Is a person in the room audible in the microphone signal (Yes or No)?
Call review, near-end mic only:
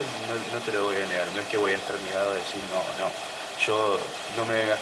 No